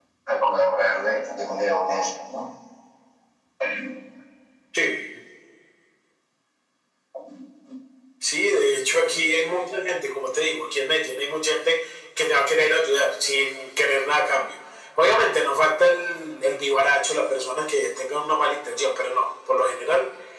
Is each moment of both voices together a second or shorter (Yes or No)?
Yes